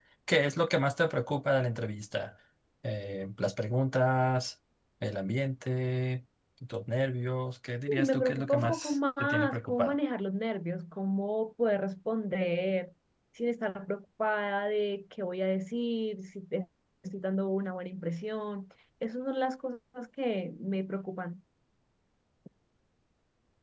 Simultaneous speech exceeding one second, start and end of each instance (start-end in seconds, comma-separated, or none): 7.9-10.0